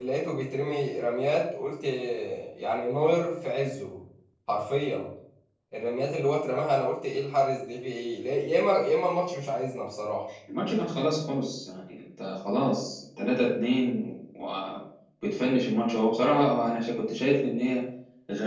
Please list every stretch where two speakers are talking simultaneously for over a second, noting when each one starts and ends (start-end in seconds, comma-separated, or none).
none